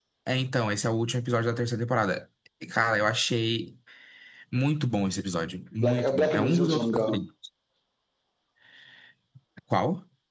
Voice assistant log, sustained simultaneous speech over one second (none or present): present